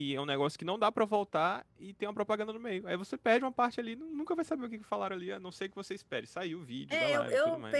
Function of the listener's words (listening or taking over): taking over